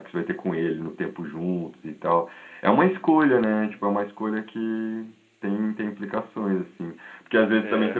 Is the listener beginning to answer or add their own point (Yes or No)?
No